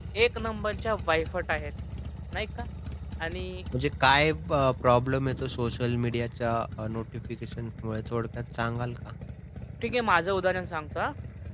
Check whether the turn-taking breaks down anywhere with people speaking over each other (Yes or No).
No